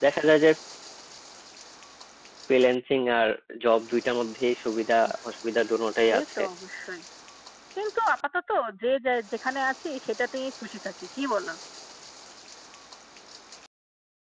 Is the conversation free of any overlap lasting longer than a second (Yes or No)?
Yes